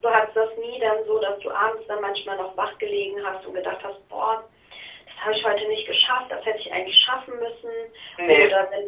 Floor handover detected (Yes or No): No